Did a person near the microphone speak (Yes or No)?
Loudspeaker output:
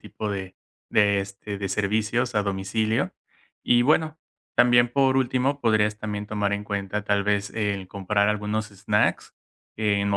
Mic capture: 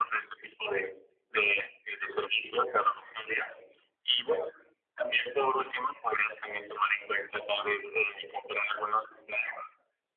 No